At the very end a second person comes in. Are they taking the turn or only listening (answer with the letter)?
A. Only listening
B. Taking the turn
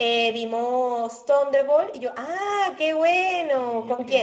A